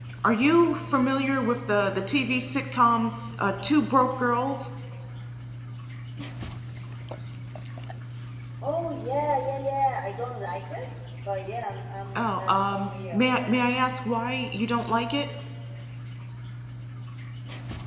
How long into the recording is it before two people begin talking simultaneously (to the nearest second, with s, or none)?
12 s